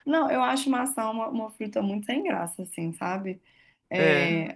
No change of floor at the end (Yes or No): Yes